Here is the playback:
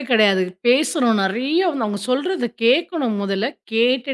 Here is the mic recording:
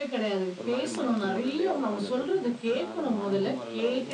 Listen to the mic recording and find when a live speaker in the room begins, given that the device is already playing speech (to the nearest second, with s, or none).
1 s